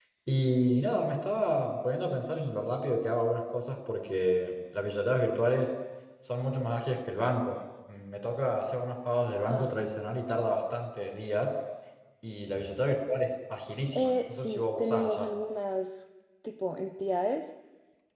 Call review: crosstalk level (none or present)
present